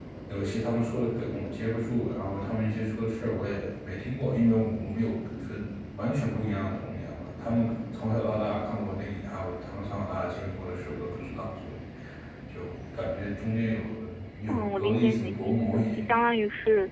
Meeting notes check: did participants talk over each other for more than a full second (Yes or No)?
Yes